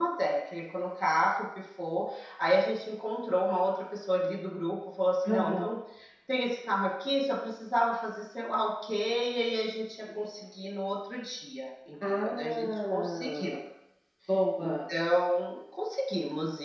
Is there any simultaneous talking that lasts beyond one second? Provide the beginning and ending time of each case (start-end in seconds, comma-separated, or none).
12.2-13.6